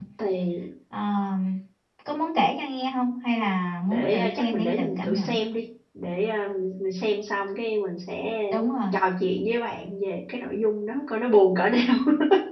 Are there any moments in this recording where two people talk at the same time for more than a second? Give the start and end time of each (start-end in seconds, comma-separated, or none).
3.9-5.3